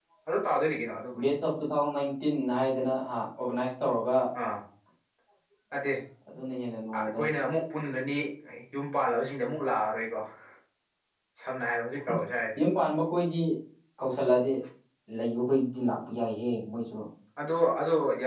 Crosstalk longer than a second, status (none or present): none